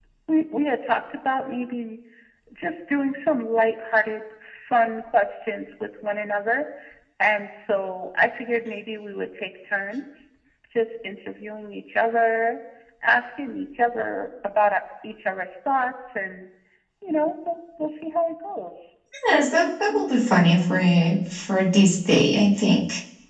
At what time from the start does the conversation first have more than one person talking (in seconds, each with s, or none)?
none